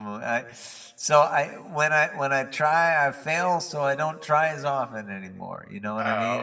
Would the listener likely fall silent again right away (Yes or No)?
No